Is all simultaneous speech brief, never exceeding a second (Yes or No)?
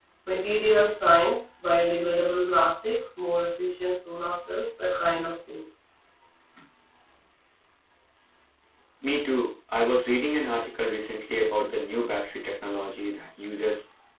Yes